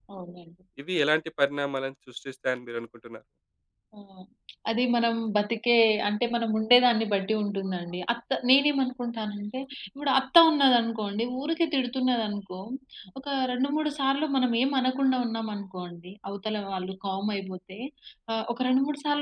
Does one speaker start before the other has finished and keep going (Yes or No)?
No